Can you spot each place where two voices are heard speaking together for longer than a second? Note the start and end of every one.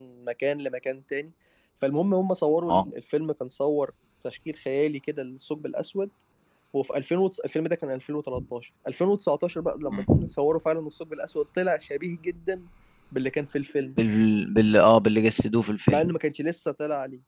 none

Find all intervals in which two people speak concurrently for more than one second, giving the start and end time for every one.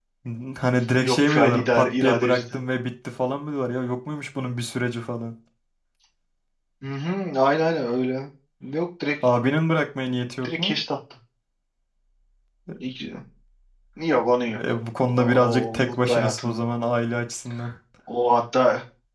1.0-2.5, 15.1-16.6

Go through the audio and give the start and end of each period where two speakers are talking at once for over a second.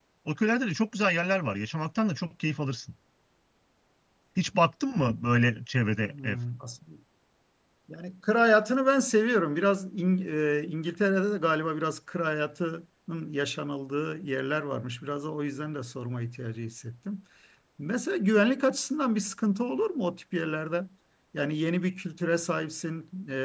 none

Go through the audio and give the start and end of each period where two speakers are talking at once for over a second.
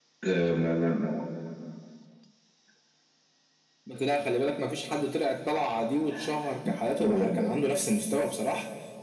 none

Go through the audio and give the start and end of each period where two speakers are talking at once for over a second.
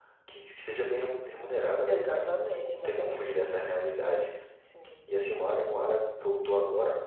1.9-3.3

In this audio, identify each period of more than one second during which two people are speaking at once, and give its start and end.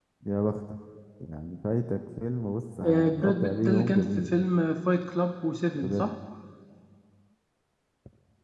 2.8-4.2

